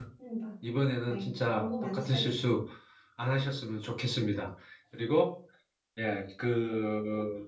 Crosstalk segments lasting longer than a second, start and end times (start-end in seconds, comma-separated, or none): 1.1-2.5